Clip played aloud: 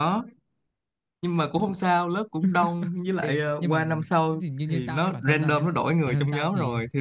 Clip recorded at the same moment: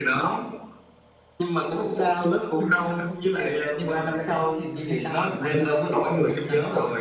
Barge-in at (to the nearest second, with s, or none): none